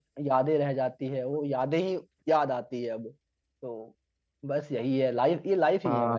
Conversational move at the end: taking over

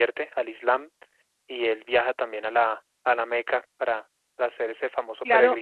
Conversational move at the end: taking over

